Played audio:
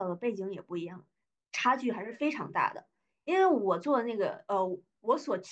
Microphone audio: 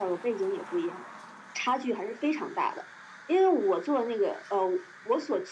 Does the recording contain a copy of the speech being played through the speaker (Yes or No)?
Yes